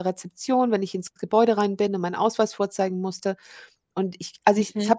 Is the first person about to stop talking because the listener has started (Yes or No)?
No